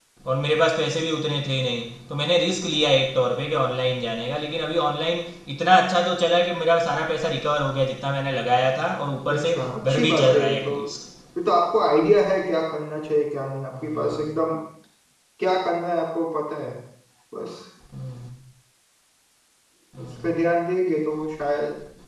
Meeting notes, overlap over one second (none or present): present